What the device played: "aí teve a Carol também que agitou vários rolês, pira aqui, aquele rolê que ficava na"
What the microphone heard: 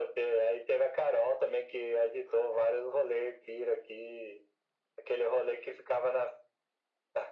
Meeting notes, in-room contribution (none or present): none